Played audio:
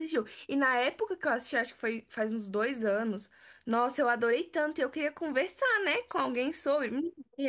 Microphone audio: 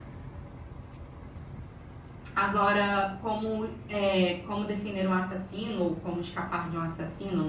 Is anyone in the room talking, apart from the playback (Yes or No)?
Yes